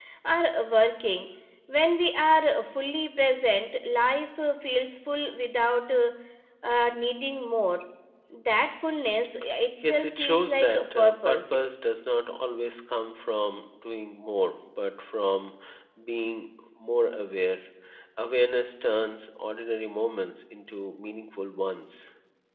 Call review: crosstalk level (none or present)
present